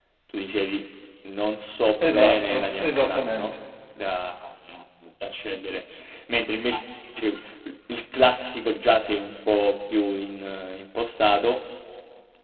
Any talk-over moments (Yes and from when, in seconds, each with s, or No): Yes, from 2.0 s